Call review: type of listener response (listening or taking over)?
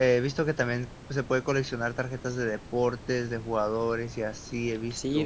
taking over